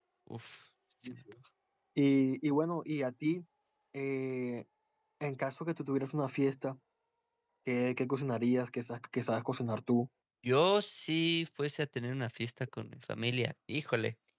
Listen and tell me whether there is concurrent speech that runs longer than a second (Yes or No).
No